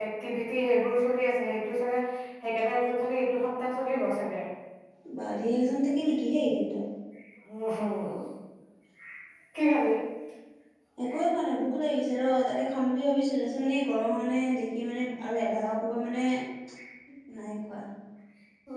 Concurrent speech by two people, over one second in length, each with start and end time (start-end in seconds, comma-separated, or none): none